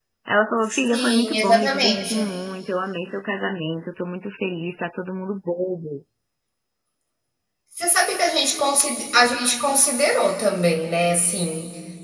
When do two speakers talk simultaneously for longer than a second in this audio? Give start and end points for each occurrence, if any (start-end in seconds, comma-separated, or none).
0.9-2.2